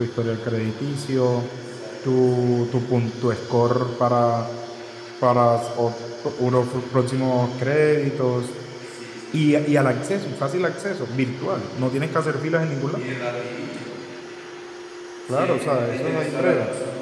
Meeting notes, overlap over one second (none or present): present